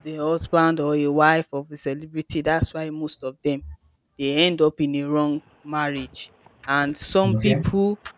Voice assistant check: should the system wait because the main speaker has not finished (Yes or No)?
Yes